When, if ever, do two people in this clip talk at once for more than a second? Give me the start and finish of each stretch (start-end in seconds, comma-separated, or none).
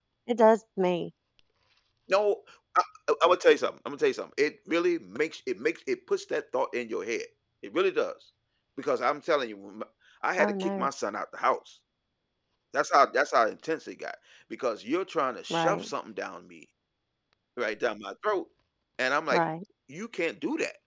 none